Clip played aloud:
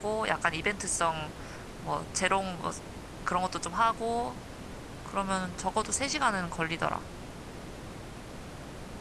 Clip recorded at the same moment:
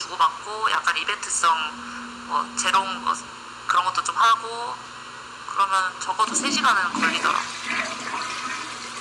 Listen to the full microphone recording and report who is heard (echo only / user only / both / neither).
echo only